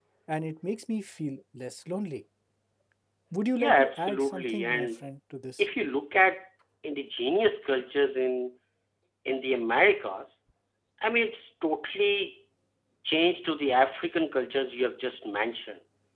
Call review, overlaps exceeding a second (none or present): present